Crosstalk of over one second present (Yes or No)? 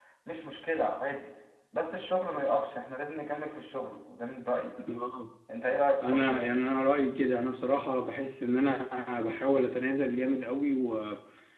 No